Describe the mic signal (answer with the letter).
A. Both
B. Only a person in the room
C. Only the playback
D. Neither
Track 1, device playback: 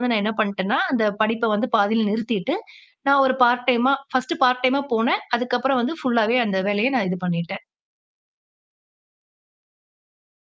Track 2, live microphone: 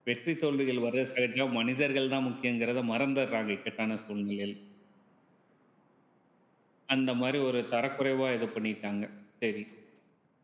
B